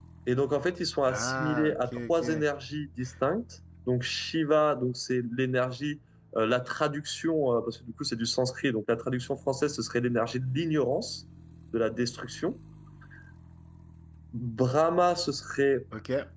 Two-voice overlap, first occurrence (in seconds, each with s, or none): 1.0 s